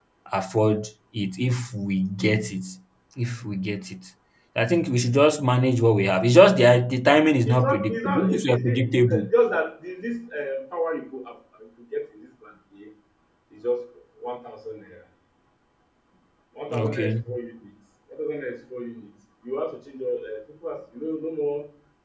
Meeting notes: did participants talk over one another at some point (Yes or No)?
Yes